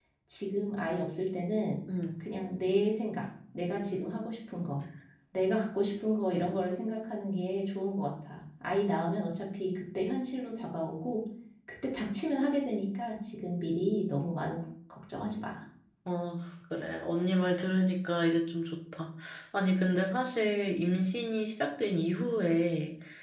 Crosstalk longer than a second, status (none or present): none